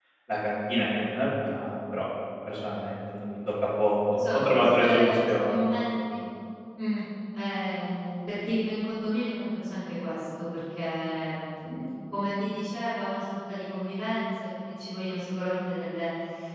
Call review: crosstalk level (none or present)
present